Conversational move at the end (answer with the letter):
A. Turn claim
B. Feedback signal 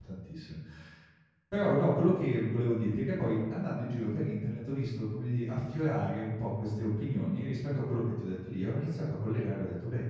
B